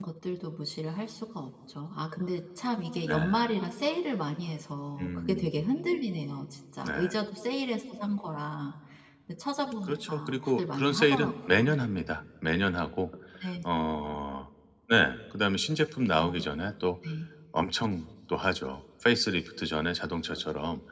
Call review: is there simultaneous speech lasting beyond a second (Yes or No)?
Yes